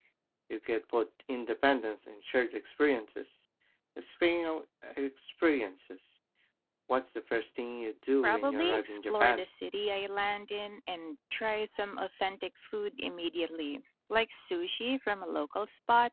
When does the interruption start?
8.2 s

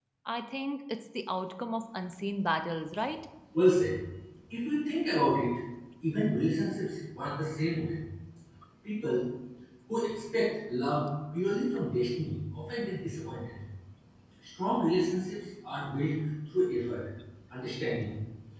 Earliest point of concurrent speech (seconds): none

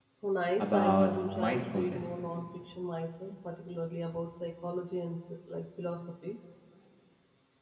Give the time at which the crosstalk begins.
0.6 s

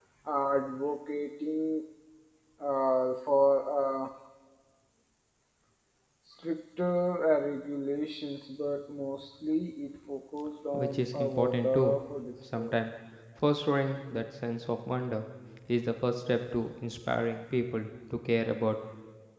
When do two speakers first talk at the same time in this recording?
10.7 s

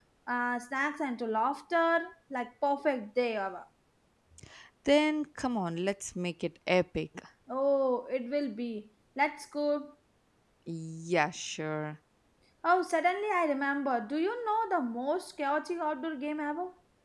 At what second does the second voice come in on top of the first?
none

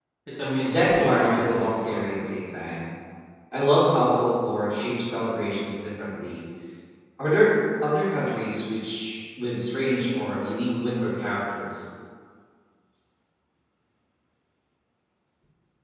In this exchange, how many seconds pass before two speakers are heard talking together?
0.6 s

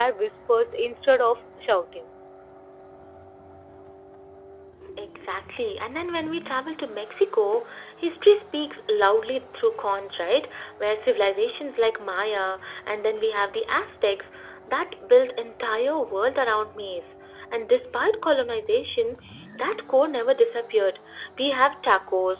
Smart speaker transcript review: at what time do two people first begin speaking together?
none

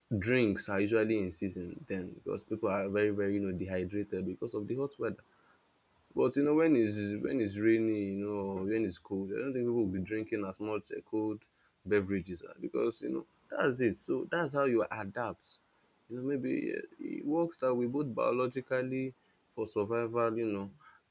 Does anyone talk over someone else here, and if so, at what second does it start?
none

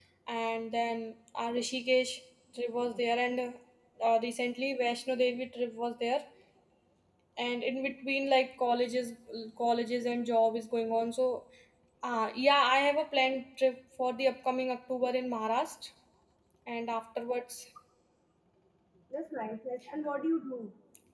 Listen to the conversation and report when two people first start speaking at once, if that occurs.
none

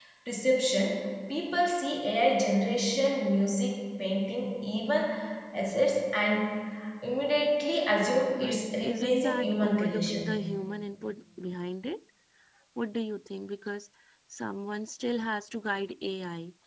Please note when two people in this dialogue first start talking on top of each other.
8.4 s

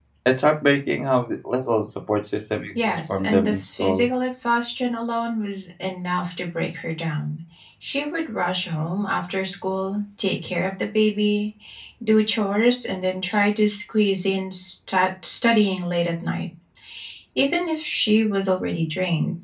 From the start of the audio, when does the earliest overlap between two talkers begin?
2.8 s

